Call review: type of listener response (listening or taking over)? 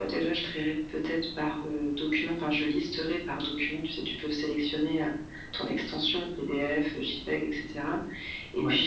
listening